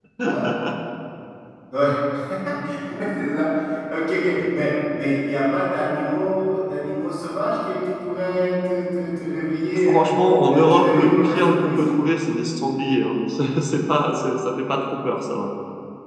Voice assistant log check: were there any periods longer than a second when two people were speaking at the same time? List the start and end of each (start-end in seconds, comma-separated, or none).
10.5-11.8